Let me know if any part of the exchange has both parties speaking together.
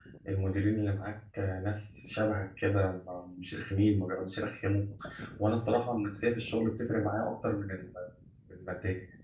No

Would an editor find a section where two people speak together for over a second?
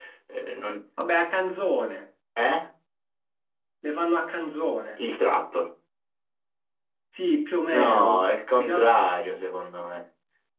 Yes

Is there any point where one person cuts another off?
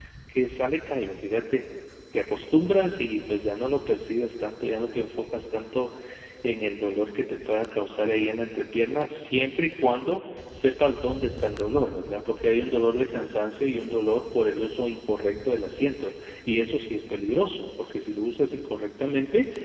No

